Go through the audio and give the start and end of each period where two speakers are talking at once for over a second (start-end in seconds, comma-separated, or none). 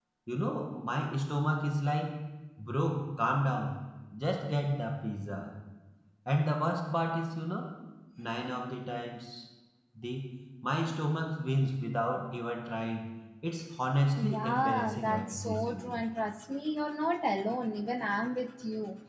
14.2-16.1